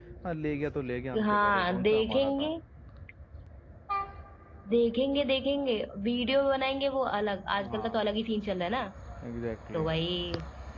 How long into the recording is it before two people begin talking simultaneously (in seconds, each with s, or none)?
1.2 s